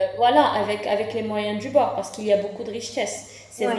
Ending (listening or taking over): listening